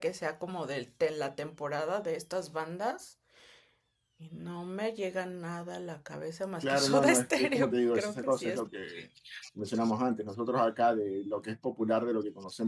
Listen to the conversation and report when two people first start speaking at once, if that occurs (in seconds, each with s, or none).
6.6 s